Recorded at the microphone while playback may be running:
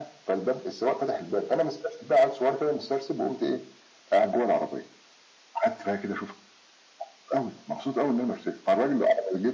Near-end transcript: none

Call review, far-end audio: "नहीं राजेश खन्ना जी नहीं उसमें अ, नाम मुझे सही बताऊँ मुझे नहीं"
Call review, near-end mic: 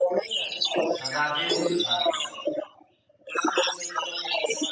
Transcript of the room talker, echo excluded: अ, राजेश खन्ना जी।

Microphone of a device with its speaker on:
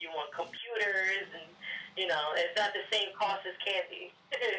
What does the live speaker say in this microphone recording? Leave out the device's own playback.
none

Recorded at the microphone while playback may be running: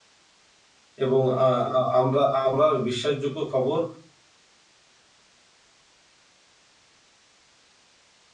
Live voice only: এবং আ আ আমরা আবার বিশ্বাসযোগ্য খবর

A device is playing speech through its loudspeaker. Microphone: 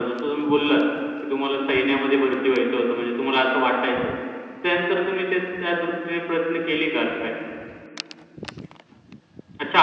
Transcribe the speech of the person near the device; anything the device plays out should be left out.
none

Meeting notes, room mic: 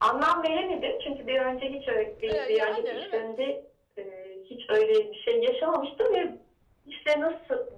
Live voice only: eee, yani evet.

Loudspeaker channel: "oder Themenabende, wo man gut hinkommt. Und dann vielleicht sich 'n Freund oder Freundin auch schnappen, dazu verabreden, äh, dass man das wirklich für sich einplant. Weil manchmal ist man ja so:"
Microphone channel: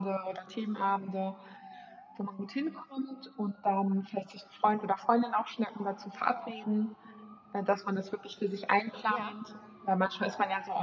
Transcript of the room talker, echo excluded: Ja.

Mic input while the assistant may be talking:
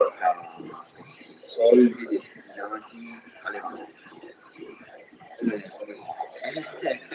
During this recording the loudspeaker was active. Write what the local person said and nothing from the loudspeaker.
none

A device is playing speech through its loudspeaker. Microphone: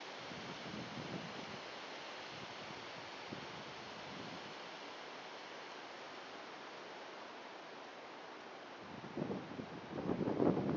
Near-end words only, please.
none

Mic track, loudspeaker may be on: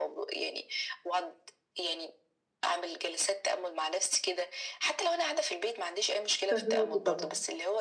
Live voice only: فاهماكِ، طبعًا.

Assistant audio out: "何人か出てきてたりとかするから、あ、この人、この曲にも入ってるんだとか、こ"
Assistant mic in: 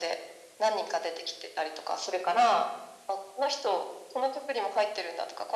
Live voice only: none

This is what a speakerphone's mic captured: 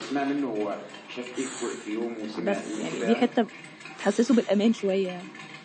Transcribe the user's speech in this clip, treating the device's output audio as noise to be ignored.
بس، يعني دي حتة م تحسّسه بالأمان شوية.

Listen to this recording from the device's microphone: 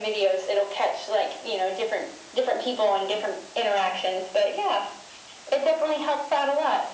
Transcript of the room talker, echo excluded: none

